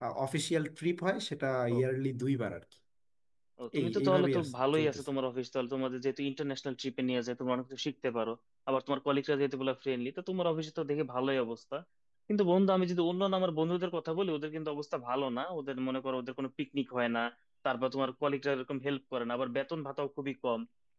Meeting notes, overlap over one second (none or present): present